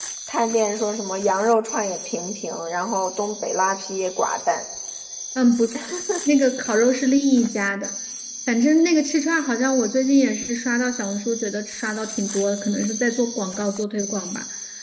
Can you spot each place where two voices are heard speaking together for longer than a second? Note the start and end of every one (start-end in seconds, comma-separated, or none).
none